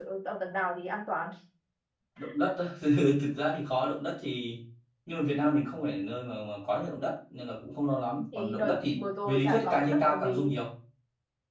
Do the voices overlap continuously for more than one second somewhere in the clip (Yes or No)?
Yes